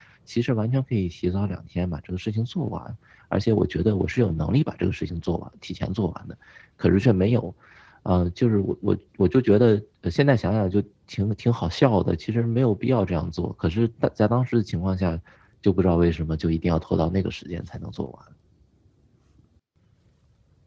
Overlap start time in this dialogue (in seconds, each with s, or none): none